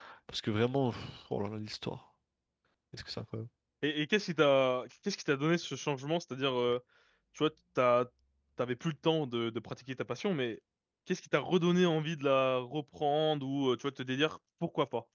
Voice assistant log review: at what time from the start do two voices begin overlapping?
none

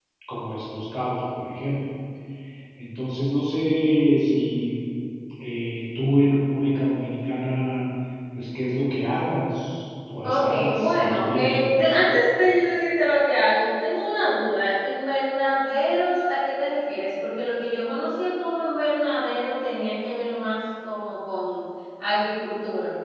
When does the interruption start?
10.2 s

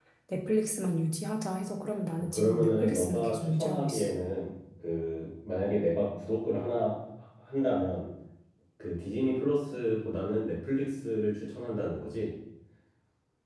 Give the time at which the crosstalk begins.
2.3 s

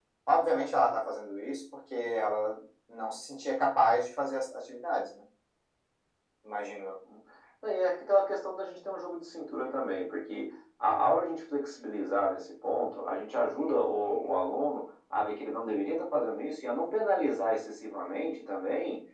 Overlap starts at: none

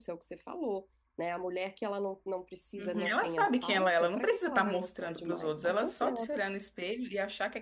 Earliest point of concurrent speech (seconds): 2.8 s

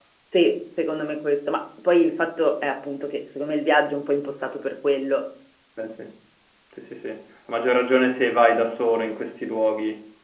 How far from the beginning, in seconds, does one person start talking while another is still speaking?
none

